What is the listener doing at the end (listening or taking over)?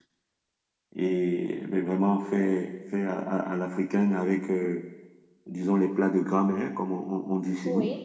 taking over